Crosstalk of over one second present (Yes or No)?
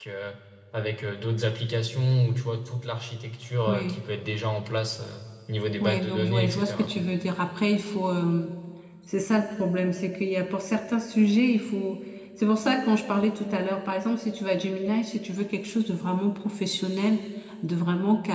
Yes